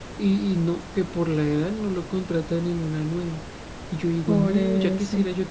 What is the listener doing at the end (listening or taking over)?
listening